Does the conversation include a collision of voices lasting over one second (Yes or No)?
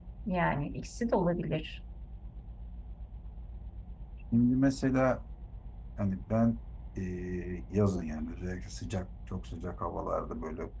No